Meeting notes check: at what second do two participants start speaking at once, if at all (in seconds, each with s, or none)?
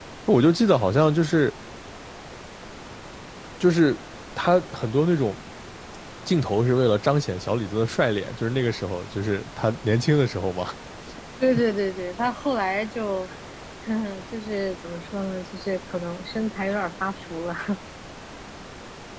none